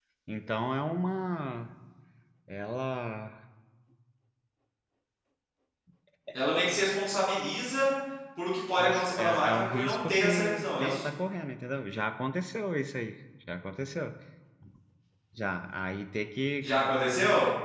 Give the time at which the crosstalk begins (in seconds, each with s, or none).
8.8 s